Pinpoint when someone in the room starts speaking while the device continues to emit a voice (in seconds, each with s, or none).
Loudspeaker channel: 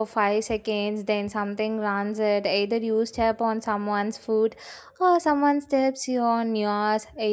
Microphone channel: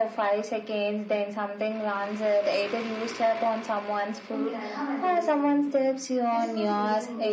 4.3 s